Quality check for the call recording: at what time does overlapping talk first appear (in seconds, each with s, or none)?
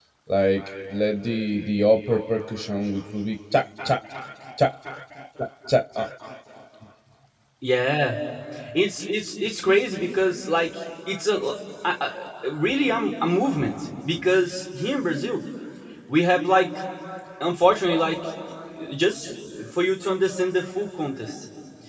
none